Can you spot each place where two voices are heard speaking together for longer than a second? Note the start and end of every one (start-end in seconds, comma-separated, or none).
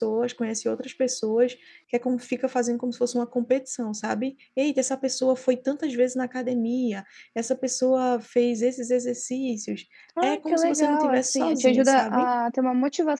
10.2-12.3